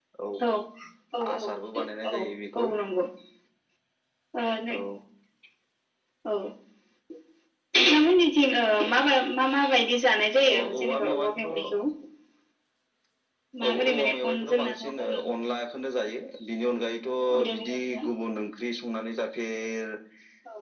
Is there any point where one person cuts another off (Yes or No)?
Yes